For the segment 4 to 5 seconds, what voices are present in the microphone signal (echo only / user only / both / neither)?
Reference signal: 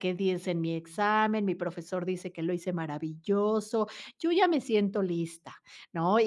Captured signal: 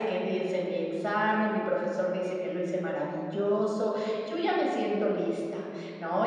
echo only